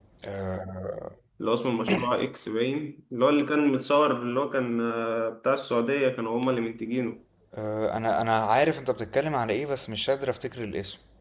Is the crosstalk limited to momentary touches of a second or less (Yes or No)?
Yes